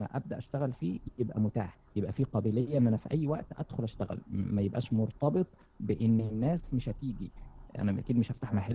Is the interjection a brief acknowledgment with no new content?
Yes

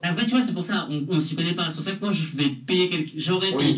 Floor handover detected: Yes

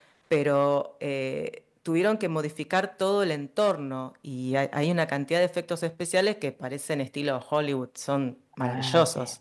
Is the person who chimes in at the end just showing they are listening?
No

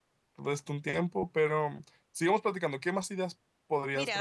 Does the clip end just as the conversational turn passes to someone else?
Yes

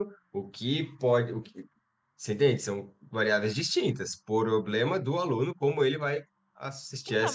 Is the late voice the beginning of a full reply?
Yes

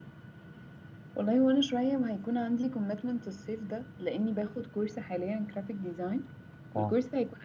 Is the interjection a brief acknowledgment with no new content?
Yes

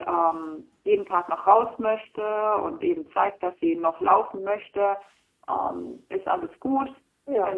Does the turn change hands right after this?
No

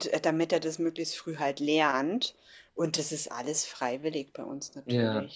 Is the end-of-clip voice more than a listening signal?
Yes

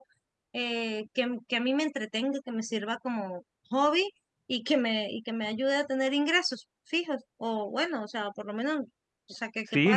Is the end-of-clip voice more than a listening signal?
Yes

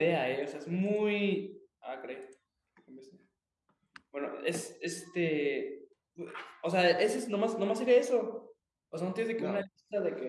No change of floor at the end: Yes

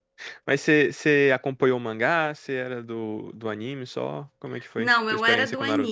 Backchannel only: No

